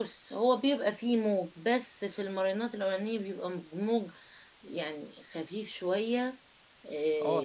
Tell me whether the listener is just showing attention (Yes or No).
No